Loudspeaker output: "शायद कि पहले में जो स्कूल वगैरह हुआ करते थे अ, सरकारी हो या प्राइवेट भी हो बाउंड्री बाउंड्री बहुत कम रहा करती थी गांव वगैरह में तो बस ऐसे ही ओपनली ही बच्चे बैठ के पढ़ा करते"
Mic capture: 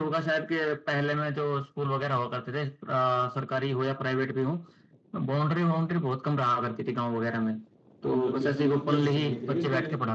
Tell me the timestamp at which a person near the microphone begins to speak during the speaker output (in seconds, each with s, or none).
8.1 s